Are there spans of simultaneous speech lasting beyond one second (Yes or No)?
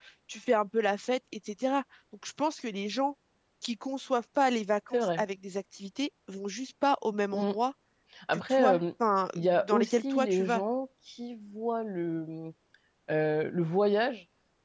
Yes